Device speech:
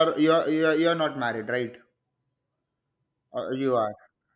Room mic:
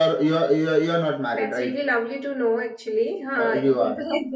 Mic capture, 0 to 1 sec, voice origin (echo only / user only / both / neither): echo only